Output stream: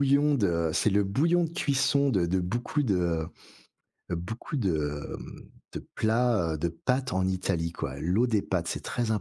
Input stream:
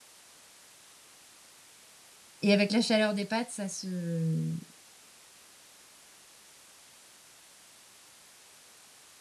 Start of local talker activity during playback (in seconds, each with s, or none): 2.4 s